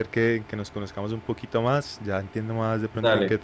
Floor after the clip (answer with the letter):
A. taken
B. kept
B